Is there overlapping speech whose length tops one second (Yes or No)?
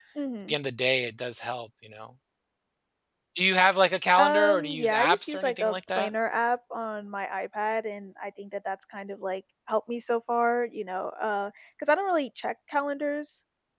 Yes